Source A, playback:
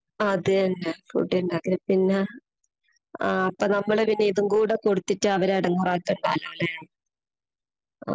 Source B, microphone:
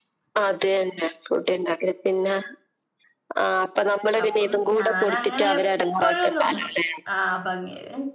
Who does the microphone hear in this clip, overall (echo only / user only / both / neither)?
both